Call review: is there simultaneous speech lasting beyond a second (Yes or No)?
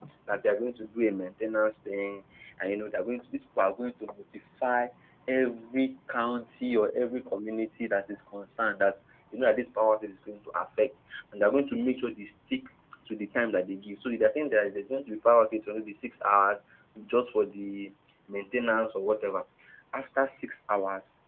No